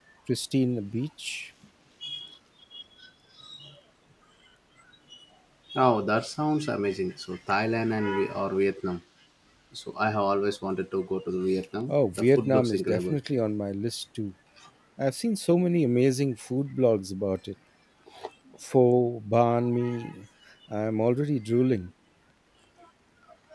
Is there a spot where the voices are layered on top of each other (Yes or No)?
Yes